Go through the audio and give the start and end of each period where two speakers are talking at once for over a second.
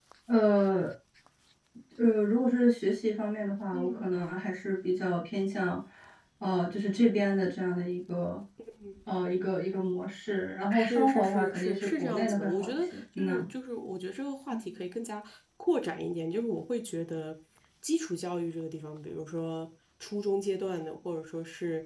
10.7-13.4

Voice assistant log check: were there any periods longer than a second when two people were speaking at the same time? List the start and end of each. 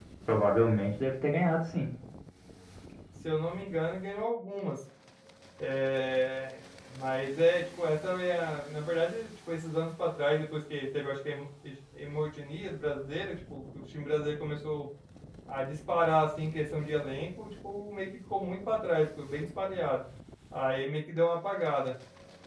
none

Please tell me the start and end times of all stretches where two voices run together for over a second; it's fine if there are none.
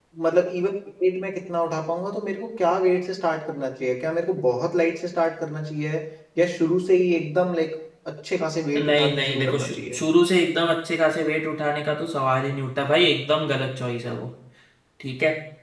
8.8-10.0

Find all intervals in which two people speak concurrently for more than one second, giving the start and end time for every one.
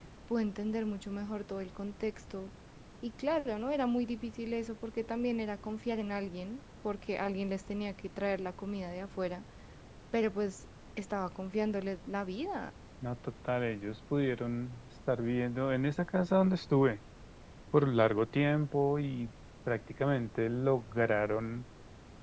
none

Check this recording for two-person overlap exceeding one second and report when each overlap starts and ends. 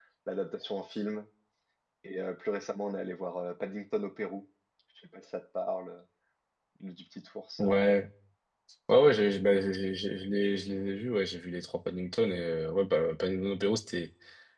none

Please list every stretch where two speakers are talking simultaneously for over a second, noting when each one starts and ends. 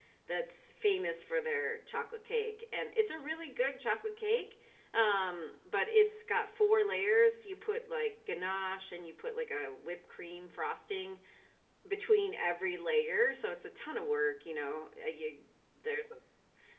none

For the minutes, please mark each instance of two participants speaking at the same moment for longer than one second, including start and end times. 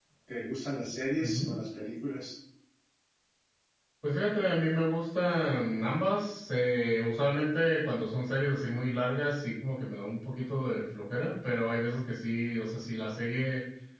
none

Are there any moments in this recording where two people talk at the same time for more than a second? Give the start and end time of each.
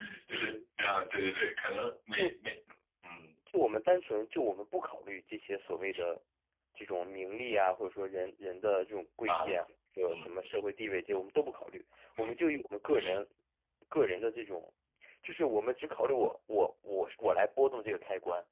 none

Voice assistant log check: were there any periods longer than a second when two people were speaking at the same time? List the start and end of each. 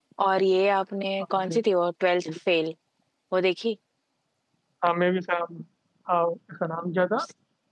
none

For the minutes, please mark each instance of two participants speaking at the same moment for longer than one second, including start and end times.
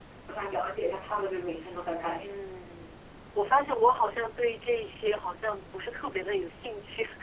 none

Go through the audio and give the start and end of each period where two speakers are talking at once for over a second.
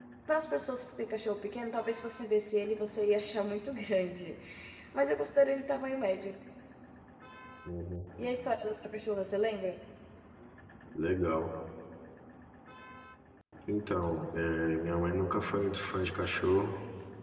none

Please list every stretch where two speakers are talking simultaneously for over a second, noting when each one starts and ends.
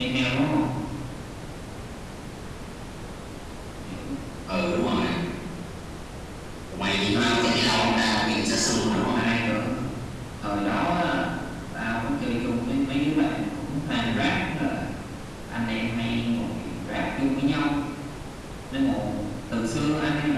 7.1-9.2

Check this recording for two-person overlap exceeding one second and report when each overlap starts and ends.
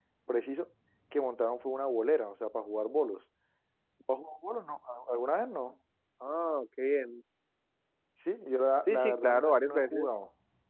8.9-10.1

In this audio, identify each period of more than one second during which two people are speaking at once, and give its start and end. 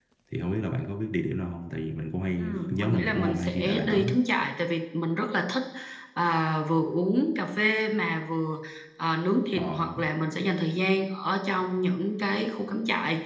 2.4-4.0

